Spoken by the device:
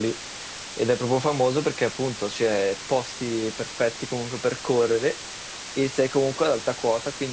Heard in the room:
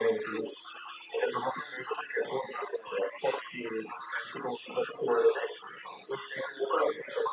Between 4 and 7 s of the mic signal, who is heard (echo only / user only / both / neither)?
echo only